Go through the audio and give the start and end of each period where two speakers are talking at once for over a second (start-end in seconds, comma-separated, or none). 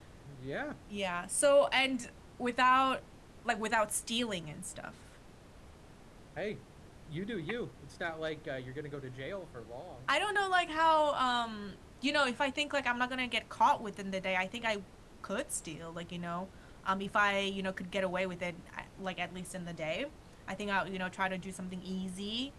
none